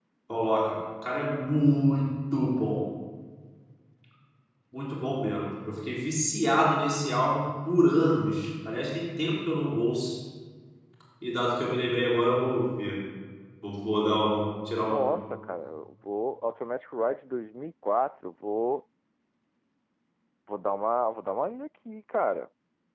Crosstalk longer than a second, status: none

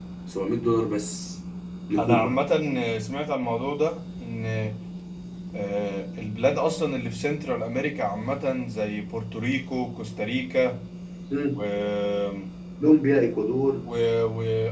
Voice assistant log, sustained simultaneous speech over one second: none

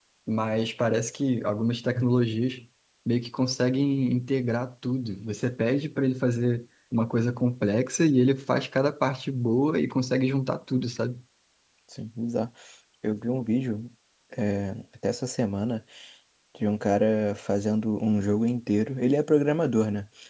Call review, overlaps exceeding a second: none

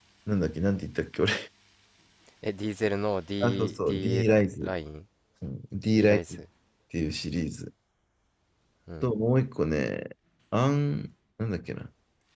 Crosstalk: present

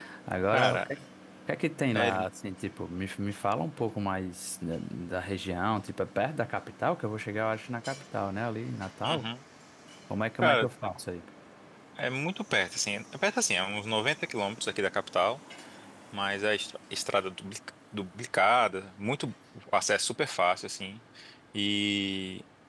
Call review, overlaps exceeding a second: none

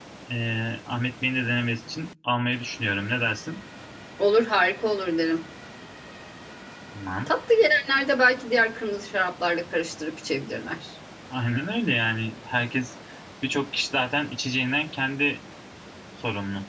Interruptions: none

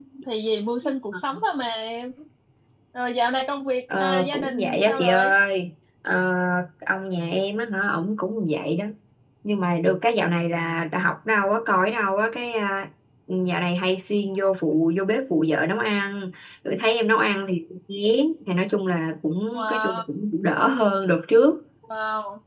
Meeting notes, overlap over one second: present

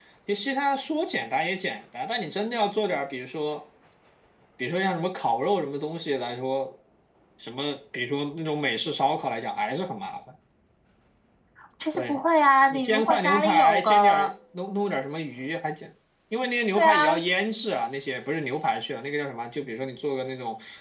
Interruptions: present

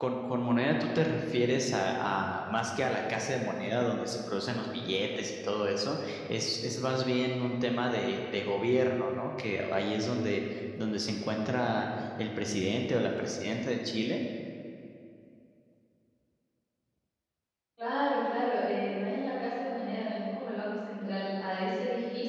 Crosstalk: none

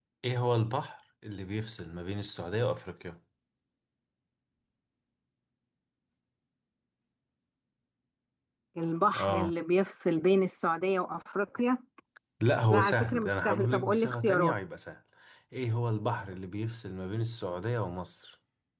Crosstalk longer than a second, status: present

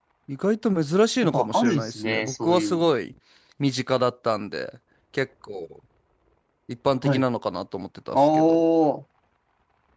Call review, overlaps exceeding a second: present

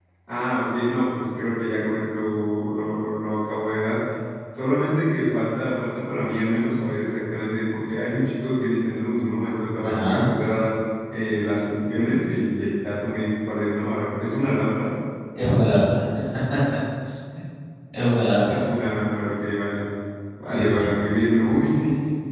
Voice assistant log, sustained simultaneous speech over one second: none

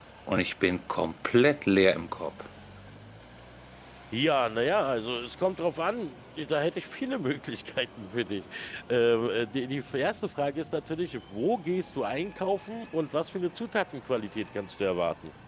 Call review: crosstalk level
none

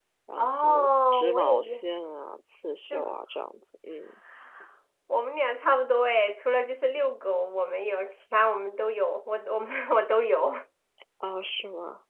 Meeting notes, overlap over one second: present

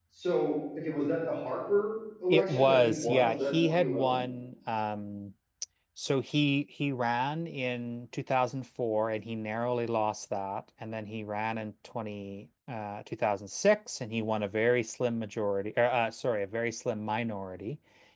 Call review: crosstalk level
present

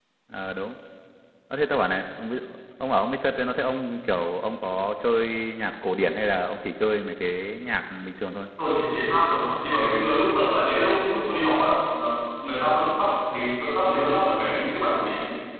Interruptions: none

